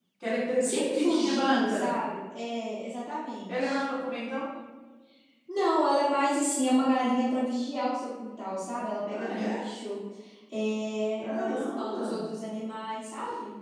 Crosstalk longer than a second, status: present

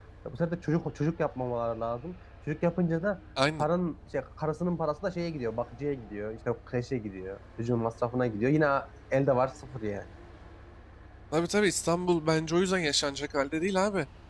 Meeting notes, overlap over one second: none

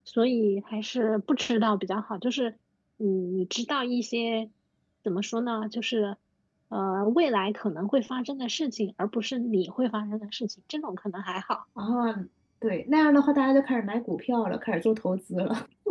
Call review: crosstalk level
none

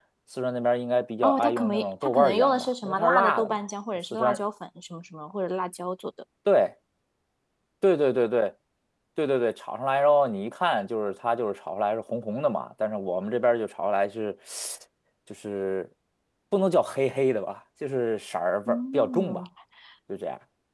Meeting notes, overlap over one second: present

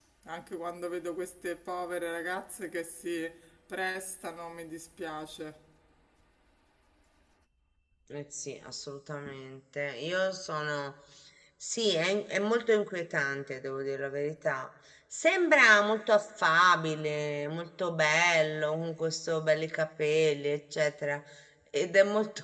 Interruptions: none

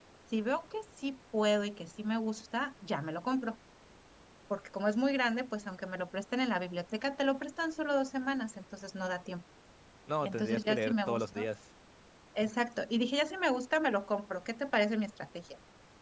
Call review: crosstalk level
present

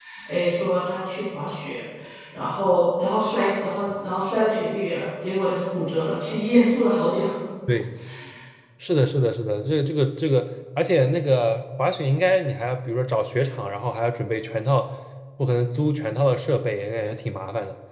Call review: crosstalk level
none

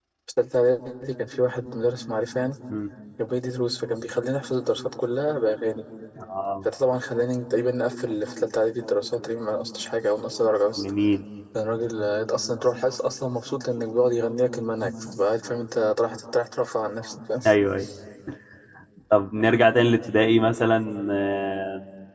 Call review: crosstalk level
none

